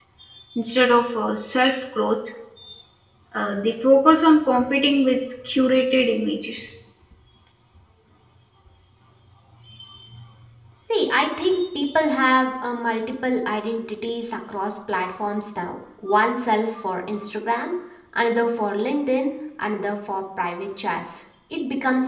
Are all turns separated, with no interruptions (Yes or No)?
Yes